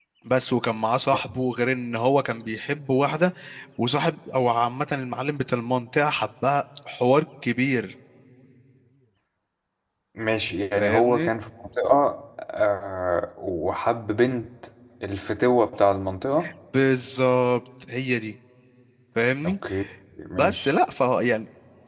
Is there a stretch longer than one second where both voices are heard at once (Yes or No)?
No